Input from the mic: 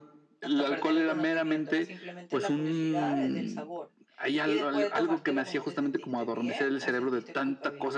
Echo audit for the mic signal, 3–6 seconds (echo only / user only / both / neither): both